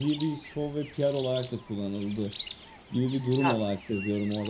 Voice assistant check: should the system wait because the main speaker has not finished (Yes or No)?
Yes